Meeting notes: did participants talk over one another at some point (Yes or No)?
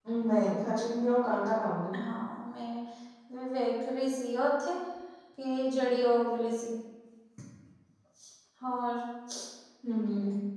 No